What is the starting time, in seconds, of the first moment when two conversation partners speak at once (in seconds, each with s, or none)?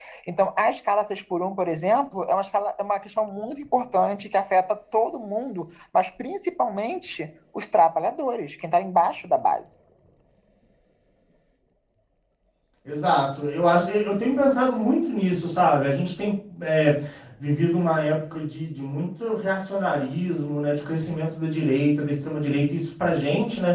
none